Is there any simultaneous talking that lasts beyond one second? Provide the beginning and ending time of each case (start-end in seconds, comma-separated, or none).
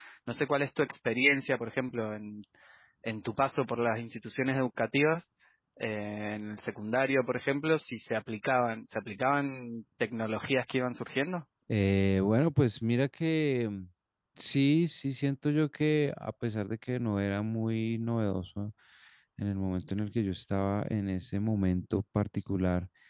none